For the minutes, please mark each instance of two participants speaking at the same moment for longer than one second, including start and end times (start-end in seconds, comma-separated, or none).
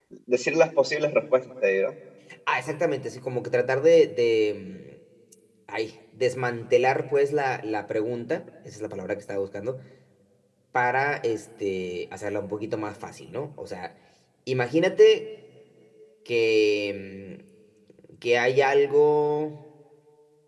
none